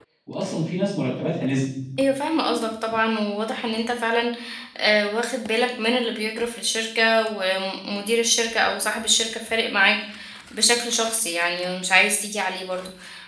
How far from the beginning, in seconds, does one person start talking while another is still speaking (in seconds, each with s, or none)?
none